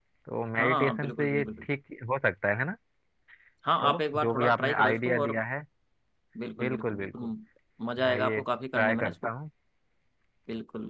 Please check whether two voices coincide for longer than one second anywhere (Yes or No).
Yes